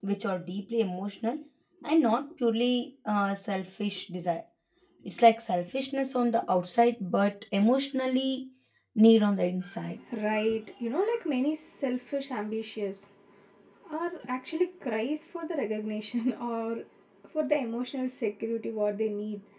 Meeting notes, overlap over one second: none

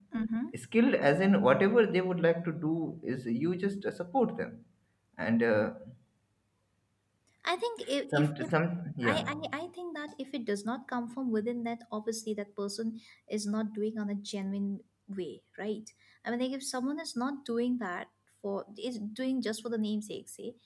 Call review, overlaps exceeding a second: none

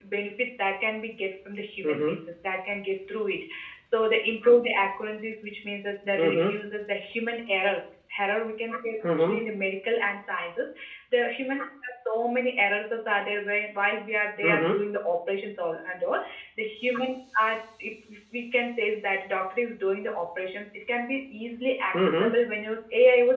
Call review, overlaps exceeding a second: none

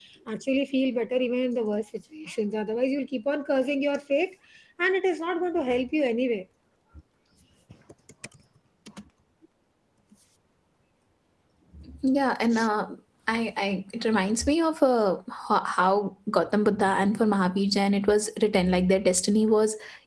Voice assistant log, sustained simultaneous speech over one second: none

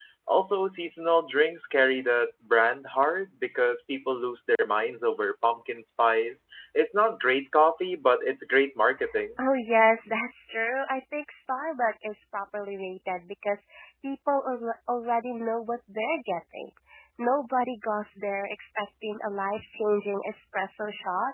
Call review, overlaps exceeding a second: none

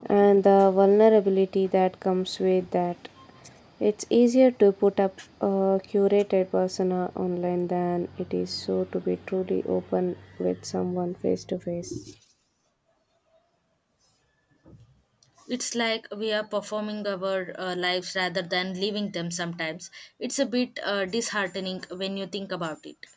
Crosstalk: none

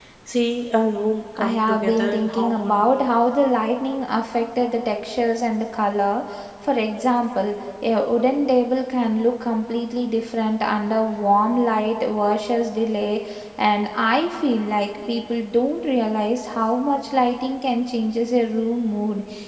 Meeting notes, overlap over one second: present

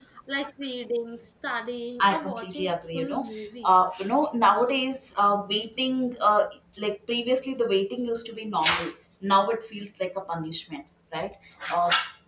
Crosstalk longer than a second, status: present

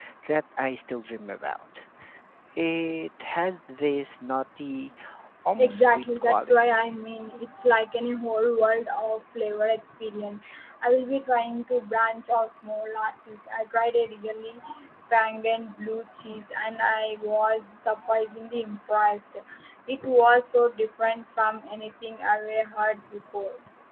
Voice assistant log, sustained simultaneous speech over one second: present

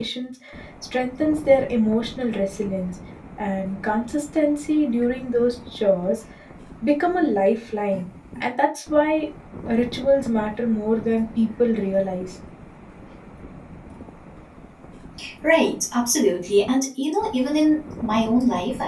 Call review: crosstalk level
none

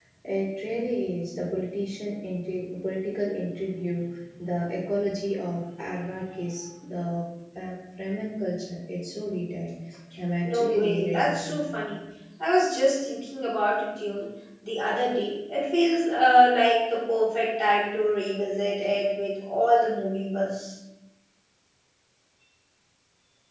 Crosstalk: present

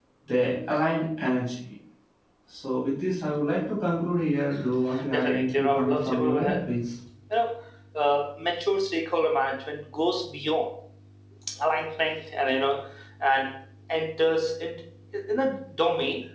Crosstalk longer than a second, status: present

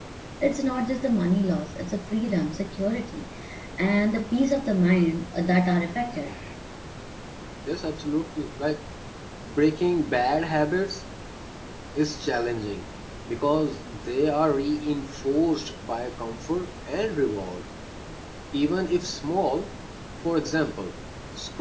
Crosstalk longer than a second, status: none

